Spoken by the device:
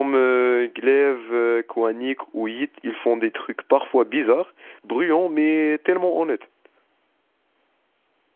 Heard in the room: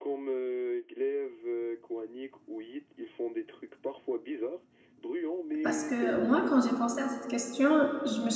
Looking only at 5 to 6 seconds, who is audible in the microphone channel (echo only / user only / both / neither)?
both